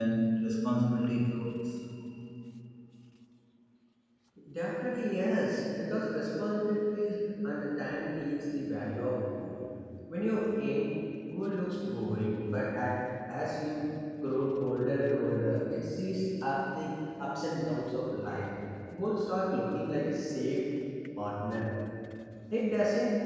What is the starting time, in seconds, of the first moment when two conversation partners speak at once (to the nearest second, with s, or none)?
none